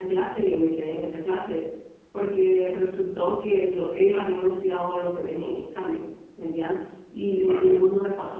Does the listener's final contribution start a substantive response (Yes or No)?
No